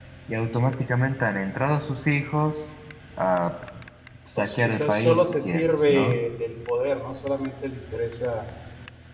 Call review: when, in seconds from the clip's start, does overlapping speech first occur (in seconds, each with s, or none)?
4.4 s